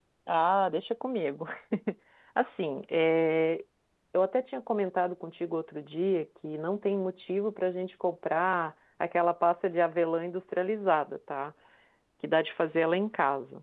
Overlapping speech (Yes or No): No